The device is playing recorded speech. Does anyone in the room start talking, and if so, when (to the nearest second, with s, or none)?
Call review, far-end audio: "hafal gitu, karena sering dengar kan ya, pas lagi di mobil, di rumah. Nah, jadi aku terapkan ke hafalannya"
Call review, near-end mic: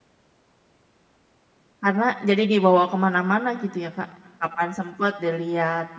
2 s